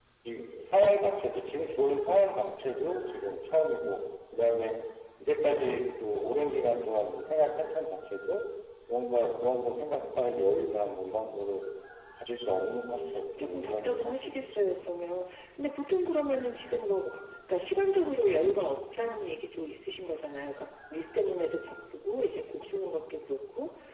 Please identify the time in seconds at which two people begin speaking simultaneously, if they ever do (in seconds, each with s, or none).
12.9 s